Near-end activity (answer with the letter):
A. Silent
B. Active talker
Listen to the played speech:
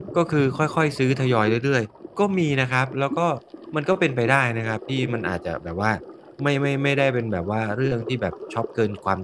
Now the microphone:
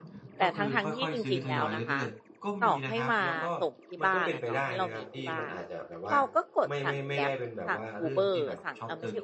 B